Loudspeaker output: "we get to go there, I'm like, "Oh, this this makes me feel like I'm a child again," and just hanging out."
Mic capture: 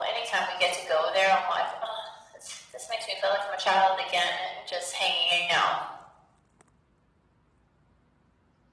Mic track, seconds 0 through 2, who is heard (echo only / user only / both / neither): echo only